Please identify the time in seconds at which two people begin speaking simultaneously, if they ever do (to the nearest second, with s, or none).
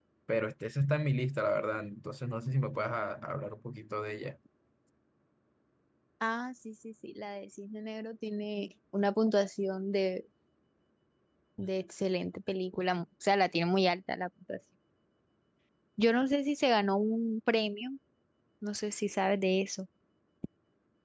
none